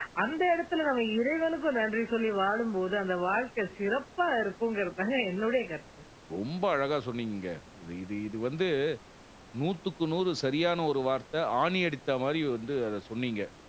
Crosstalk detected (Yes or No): No